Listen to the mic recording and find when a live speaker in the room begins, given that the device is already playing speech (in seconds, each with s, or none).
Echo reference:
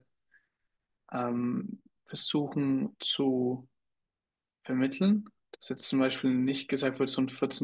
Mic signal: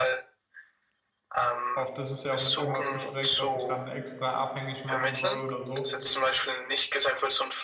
1.7 s